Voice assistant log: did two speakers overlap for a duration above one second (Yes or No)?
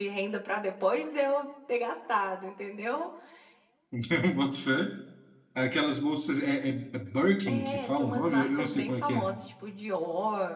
Yes